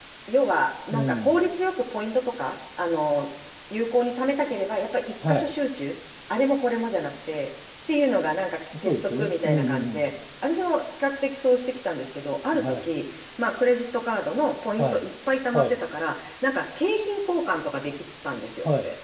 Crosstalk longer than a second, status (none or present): present